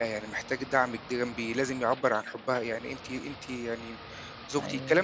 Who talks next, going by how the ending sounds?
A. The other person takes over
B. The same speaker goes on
B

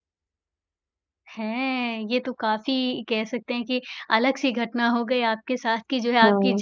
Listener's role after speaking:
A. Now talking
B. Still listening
B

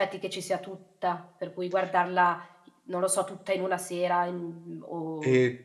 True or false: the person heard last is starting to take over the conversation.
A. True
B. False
A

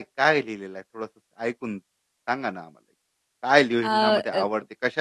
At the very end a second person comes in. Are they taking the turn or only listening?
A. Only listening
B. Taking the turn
A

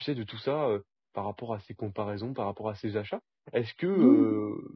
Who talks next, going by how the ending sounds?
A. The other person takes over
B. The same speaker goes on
B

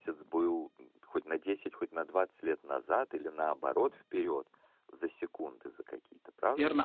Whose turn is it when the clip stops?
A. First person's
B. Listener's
B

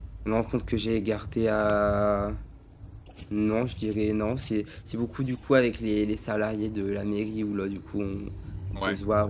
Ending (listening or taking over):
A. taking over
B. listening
B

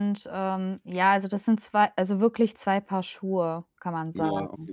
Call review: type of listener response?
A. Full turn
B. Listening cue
A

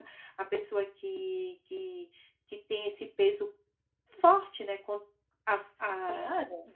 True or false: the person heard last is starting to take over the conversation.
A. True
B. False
B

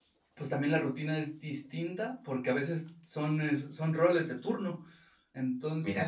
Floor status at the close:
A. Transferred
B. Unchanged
B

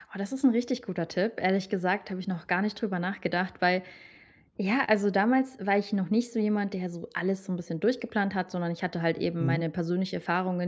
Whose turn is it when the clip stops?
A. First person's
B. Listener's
A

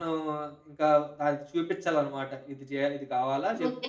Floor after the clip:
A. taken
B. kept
A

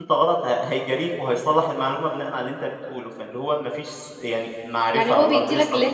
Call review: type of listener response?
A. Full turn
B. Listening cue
A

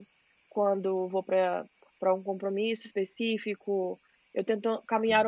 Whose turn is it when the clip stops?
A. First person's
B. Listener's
A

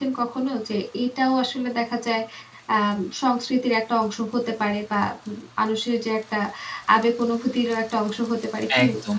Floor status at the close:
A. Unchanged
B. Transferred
B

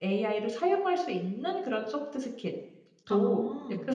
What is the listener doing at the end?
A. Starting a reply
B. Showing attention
B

